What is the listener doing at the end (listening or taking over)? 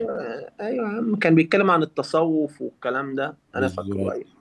listening